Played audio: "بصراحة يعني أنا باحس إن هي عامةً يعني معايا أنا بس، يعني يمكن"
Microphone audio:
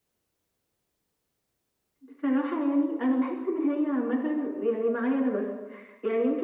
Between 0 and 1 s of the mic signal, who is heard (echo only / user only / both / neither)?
neither